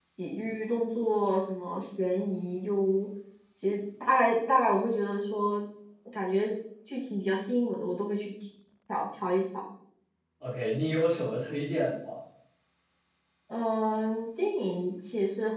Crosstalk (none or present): none